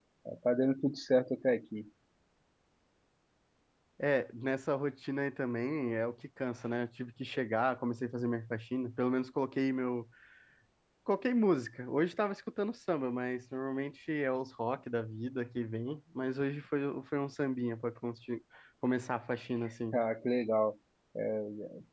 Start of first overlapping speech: none

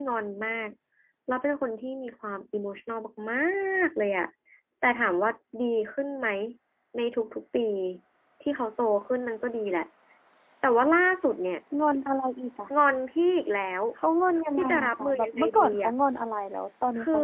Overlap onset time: 14.6 s

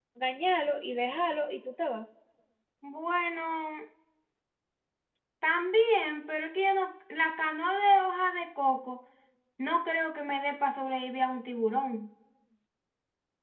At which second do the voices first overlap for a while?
none

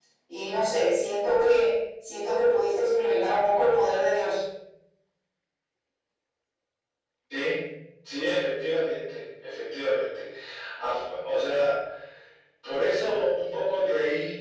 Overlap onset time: none

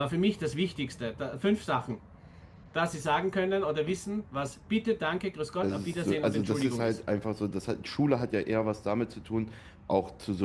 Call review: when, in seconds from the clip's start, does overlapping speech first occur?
5.6 s

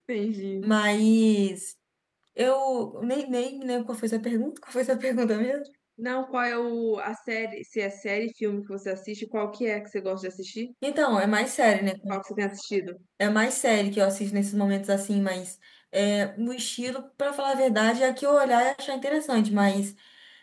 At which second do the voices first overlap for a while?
none

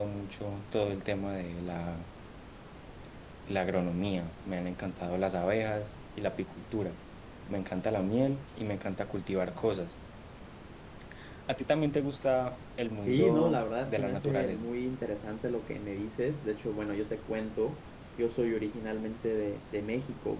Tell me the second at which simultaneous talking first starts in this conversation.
13.0 s

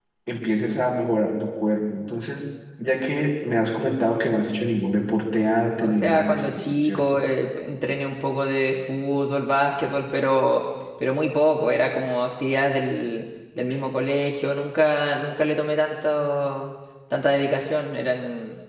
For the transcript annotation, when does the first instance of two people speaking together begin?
5.8 s

